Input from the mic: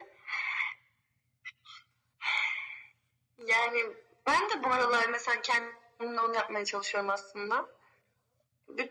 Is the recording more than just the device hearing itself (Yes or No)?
No